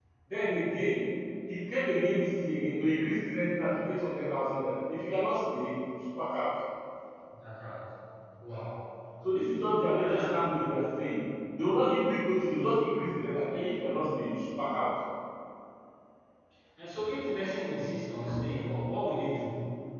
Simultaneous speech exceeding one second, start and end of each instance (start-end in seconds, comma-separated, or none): none